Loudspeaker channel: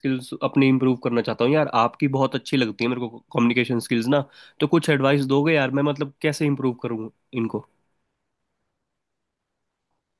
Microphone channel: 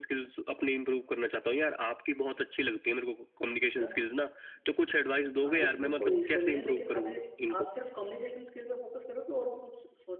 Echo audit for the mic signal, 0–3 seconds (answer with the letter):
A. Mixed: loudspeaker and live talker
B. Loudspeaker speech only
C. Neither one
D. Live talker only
B